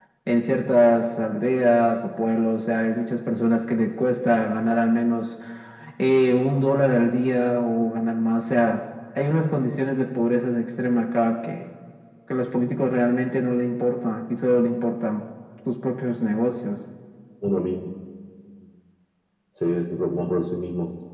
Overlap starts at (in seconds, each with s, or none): none